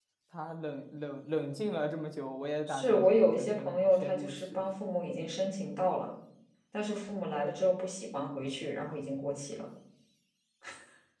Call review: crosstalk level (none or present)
present